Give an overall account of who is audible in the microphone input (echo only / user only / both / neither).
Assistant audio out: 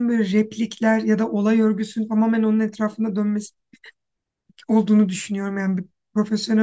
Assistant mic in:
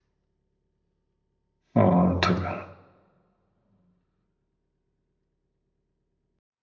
user only